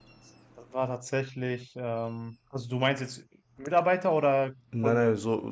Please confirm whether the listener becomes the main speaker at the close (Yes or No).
Yes